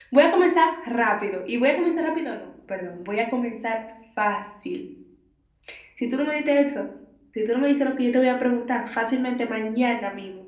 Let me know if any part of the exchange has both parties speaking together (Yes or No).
No